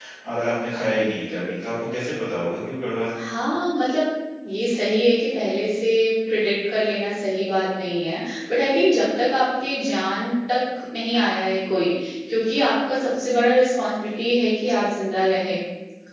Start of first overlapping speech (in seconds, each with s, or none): none